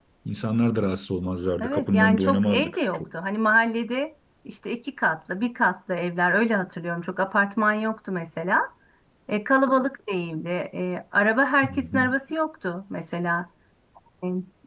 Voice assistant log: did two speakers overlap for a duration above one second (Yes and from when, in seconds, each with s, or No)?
Yes, from 1.6 s